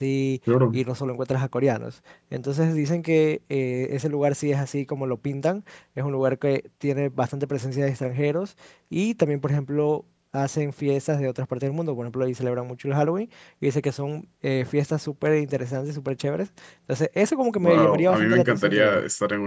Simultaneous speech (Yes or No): Yes